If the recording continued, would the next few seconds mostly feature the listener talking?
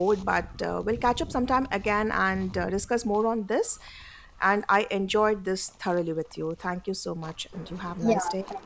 Yes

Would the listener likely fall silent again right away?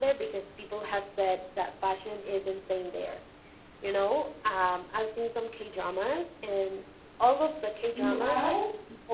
Yes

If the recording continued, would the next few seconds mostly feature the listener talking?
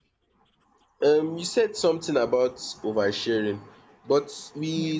No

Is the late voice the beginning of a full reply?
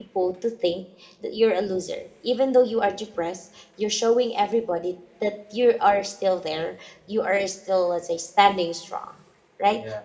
No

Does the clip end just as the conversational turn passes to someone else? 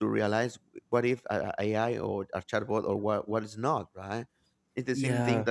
No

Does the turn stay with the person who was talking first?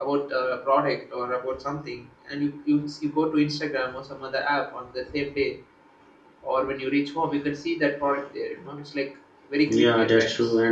No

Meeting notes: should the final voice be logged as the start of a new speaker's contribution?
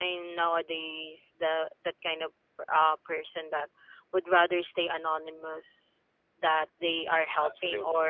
No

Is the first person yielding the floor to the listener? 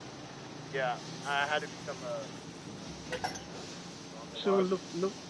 Yes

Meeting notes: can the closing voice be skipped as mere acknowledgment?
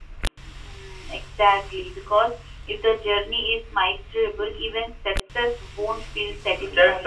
No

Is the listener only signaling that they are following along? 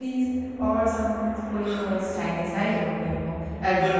Yes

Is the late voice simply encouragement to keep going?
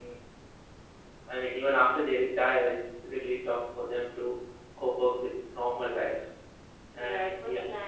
No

